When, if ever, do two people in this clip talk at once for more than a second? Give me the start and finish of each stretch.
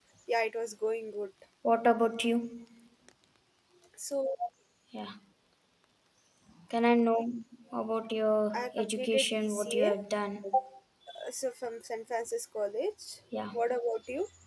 8.5-9.9

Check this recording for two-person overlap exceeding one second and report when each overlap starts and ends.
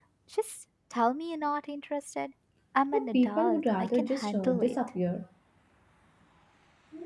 2.9-4.8

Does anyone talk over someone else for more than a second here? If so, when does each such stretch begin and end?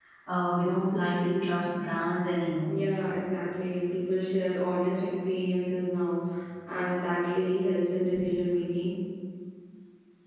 none

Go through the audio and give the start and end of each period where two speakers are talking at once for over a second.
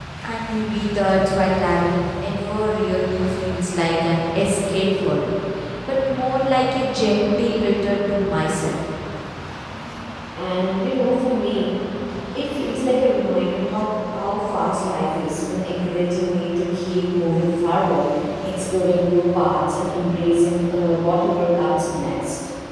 none

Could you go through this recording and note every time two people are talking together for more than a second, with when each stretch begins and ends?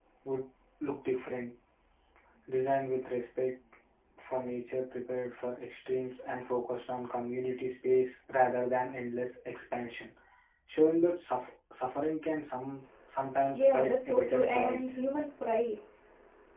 13.5-14.9

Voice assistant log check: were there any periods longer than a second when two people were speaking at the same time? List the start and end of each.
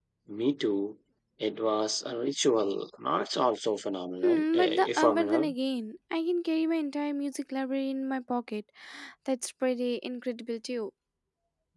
4.2-5.5

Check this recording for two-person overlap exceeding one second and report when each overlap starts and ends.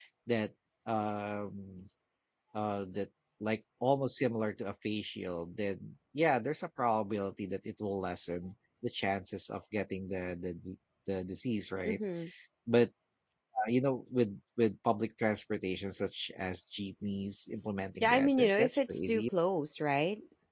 18.0-19.2

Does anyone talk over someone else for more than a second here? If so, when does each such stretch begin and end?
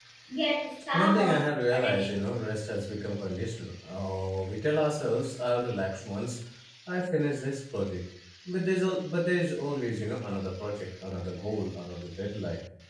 0.9-2.2

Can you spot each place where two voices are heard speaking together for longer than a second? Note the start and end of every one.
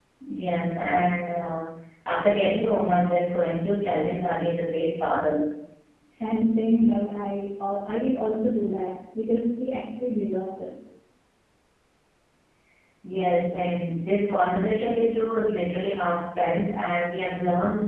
none

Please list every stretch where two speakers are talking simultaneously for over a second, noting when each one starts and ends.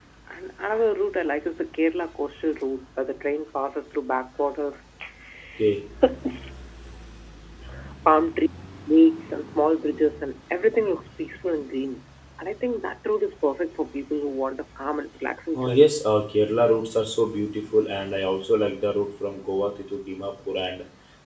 none

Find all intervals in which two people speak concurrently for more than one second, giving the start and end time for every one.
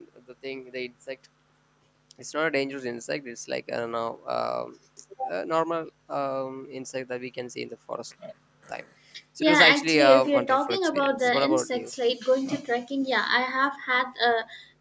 9.4-11.9

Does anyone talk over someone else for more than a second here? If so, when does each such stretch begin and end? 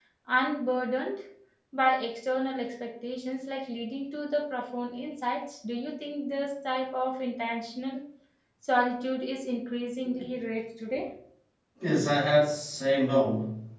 none

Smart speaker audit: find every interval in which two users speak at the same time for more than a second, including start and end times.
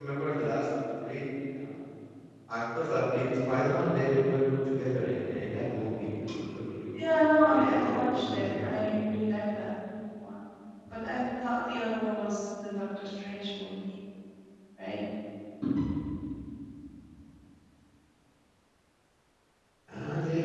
7.5-9.0

